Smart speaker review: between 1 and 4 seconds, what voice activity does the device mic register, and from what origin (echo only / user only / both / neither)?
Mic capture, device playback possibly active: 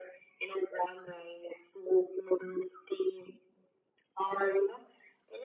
echo only